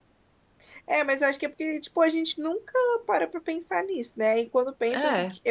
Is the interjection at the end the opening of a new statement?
No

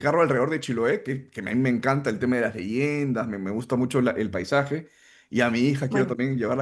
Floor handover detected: No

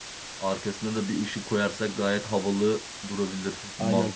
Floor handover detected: Yes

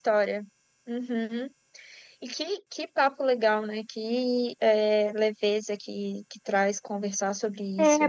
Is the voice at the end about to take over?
Yes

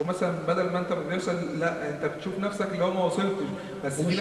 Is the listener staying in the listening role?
Yes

